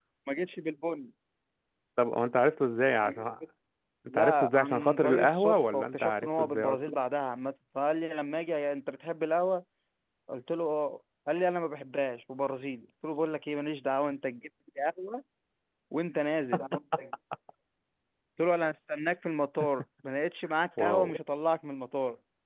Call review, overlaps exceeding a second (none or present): present